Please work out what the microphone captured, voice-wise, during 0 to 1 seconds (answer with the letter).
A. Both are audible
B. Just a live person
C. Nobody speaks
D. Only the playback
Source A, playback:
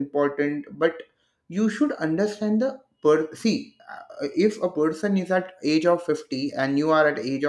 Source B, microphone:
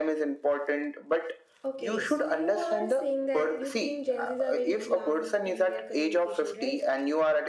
D